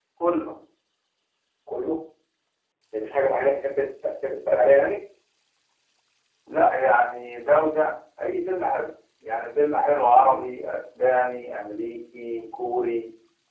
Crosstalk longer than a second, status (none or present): none